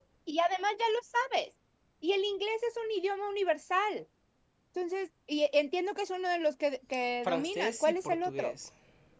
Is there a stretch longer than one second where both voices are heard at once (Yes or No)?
Yes